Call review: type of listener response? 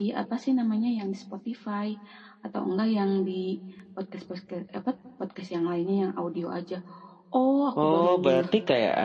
taking over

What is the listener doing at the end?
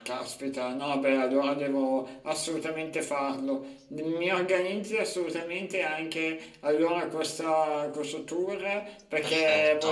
listening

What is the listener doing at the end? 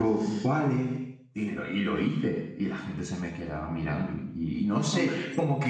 listening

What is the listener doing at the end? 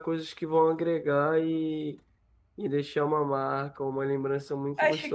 taking over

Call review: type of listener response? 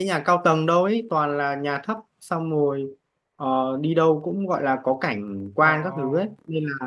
listening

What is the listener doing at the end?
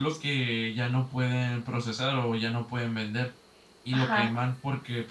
listening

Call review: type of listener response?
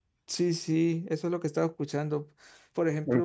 listening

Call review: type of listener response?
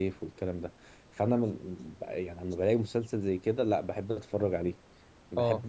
listening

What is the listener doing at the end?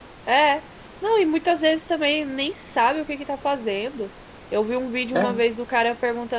listening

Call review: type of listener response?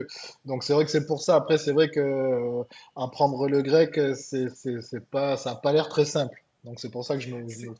taking over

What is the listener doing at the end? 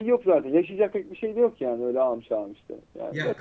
taking over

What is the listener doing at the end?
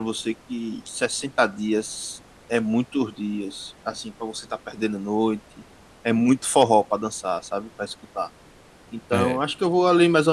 listening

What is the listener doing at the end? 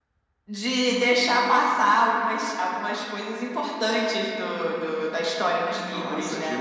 taking over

